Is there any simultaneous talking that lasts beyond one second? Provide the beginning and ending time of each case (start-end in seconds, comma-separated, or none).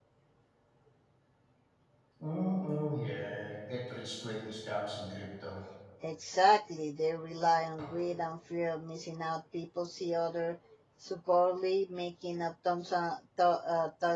none